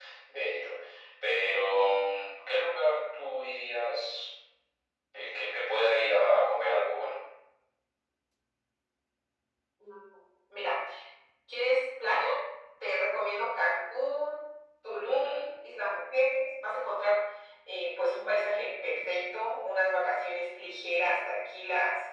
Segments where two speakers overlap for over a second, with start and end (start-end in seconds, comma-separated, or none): none